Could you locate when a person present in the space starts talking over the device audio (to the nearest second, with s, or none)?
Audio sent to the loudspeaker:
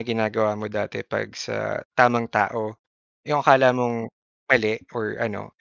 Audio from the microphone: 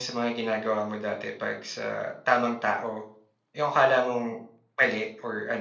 none